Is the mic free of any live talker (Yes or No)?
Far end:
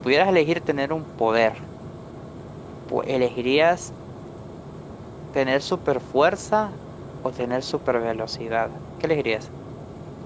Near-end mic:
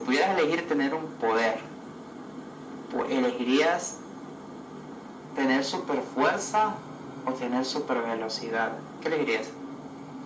Yes